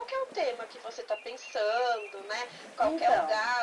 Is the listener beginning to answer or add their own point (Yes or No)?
No